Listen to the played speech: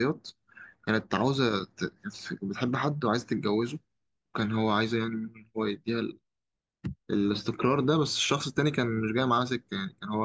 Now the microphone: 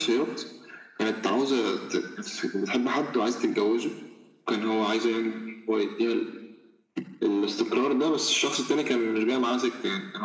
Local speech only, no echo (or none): none